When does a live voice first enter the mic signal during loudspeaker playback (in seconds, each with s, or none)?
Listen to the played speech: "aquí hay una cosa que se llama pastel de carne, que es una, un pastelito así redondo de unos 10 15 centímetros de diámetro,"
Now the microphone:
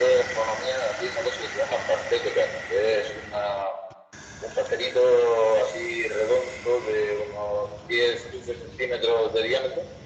none